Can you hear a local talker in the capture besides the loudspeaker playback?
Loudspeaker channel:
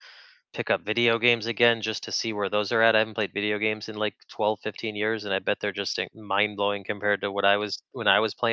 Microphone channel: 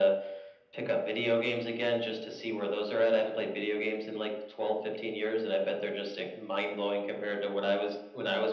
No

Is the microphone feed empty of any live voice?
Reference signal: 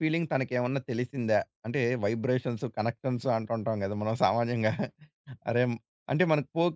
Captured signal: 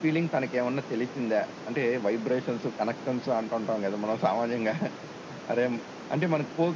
Yes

